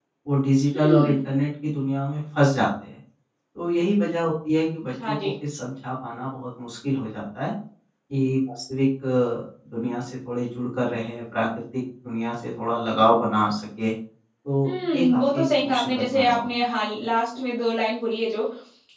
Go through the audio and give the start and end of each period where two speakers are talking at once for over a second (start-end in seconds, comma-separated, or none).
14.6-16.4